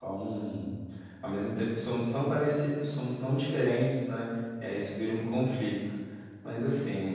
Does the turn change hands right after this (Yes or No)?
No